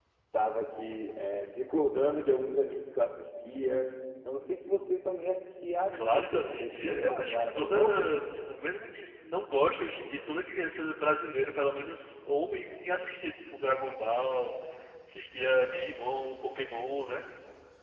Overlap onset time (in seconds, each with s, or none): 5.9 s